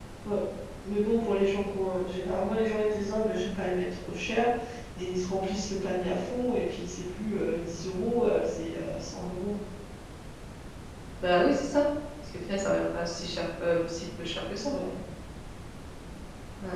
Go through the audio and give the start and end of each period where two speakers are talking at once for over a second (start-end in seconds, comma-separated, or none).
none